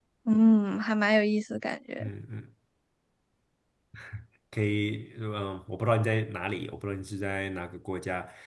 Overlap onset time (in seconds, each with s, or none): none